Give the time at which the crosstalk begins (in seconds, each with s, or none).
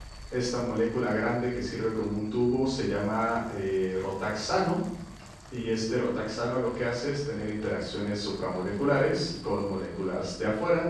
none